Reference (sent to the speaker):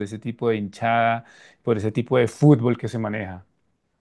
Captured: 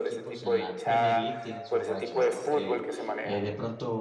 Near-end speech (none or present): present